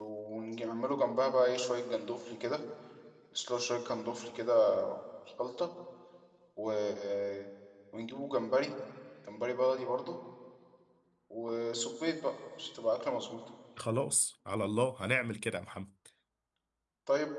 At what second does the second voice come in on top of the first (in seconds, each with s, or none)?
none